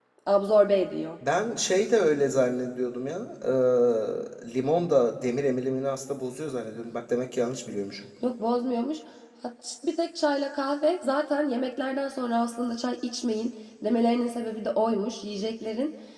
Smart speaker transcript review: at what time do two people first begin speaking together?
none

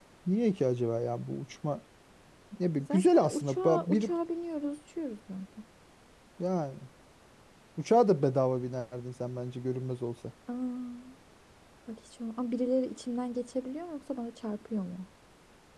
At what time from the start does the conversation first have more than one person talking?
2.8 s

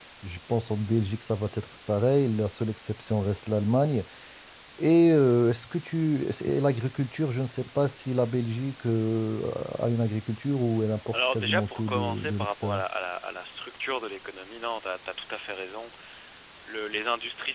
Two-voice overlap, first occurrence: 11.1 s

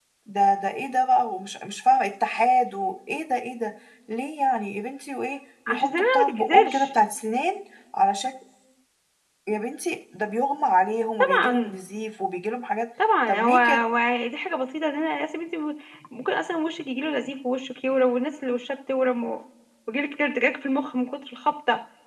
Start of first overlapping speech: 5.7 s

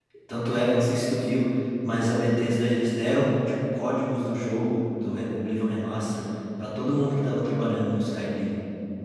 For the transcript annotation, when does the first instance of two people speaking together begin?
none

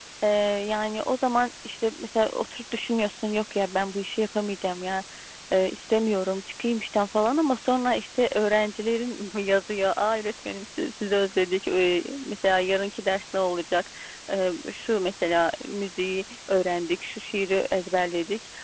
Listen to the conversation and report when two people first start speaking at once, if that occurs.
none

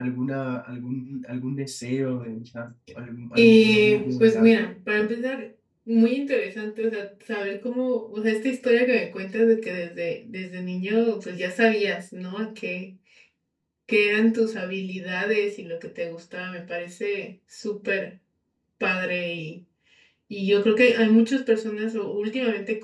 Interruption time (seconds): 3.4 s

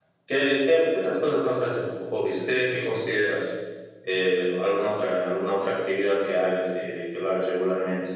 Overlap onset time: none

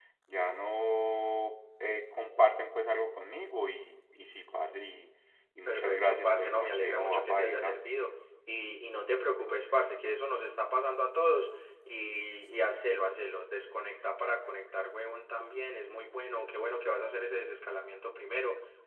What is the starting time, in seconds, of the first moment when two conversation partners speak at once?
5.7 s

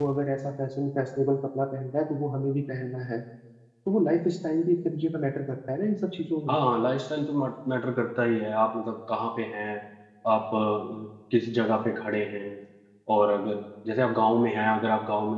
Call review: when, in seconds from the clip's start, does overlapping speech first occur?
none

